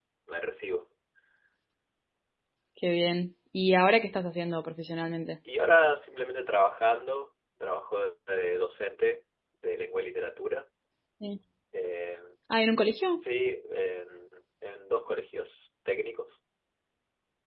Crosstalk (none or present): none